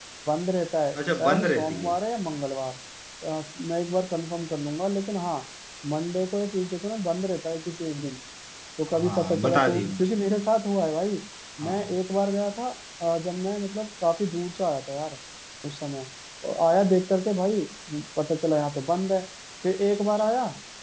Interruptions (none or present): present